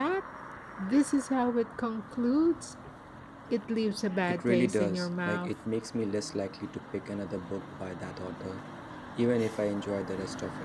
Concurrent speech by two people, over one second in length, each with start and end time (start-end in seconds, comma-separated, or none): 4.3-5.5